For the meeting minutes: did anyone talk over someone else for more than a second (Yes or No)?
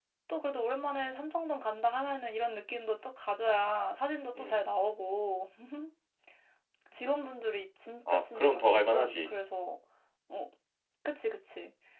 Yes